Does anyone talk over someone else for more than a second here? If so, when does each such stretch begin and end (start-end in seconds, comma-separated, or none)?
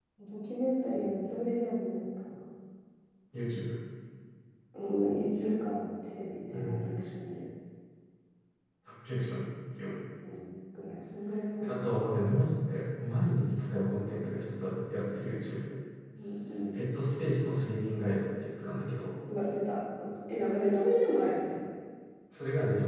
none